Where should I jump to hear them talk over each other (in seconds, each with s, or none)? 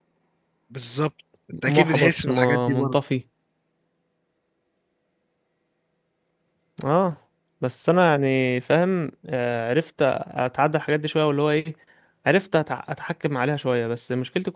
1.5 s